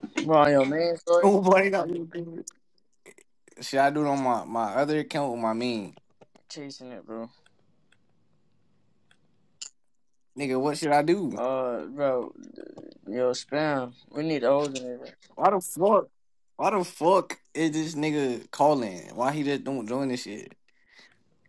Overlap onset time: none

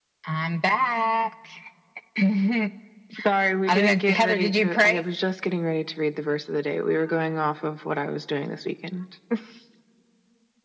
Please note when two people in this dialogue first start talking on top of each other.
3.7 s

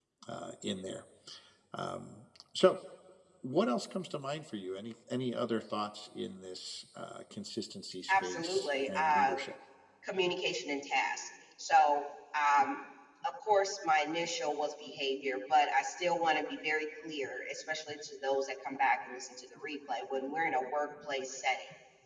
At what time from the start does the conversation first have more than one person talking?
8.1 s

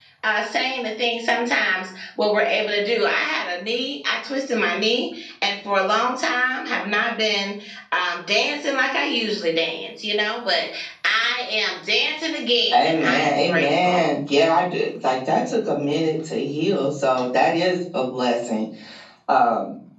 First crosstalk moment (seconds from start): 12.7 s

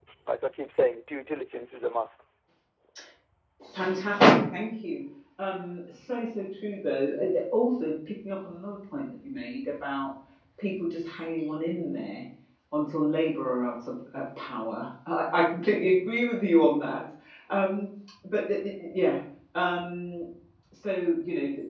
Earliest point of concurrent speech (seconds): none

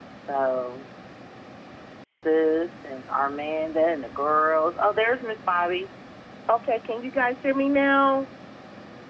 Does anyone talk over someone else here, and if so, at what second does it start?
none

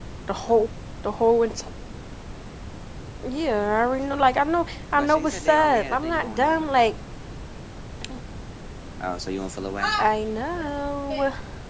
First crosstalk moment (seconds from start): 5.0 s

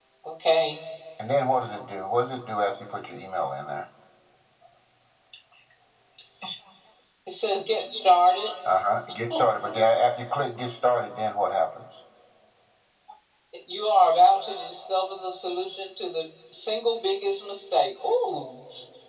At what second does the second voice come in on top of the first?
none

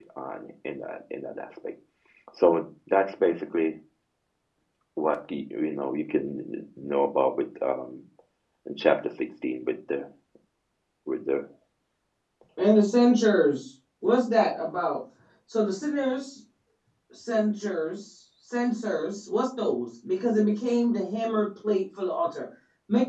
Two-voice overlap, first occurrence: none

